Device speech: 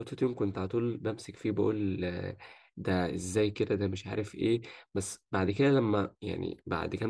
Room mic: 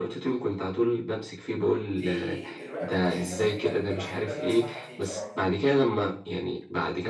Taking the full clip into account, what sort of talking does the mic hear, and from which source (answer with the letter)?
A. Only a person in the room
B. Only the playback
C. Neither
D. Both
D